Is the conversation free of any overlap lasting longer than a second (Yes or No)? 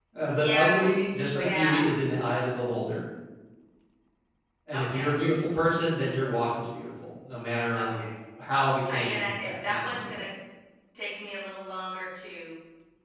No